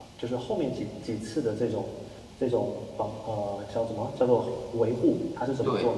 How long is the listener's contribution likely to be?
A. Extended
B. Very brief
B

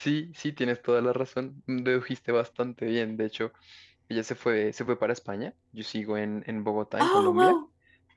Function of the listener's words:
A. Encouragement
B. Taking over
A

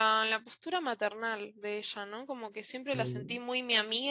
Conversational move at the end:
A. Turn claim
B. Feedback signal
B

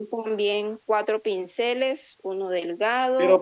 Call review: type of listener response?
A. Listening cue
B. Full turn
B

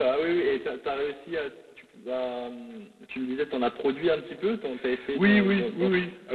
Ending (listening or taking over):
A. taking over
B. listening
A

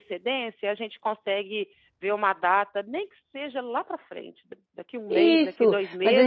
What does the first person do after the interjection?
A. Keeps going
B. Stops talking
B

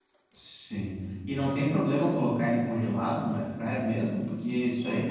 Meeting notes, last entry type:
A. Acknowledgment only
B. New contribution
A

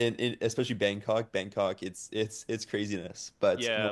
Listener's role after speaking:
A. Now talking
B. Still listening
A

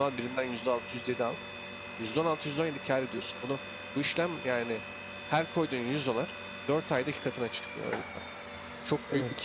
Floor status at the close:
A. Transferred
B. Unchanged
A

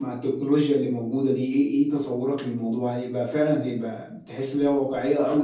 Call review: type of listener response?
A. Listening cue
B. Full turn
A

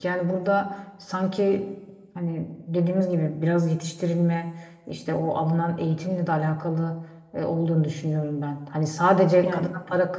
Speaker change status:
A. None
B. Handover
A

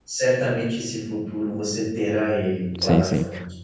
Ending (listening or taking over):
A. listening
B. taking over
B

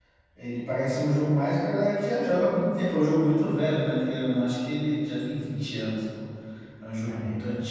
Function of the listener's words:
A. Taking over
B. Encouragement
B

